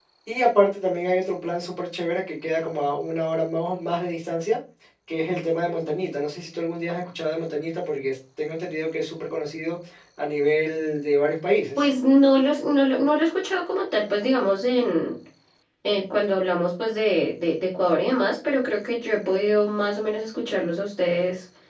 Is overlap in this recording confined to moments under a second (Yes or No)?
Yes